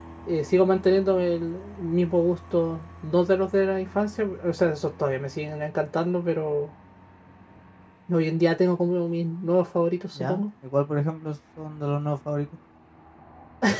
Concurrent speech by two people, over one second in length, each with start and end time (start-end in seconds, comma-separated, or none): none